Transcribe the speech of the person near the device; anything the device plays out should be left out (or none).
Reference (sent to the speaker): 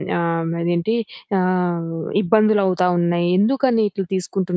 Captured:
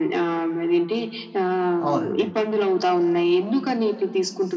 అవునండి.